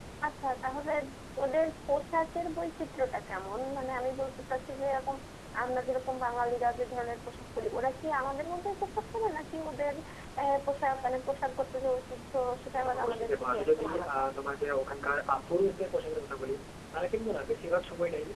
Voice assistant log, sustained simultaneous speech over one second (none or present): present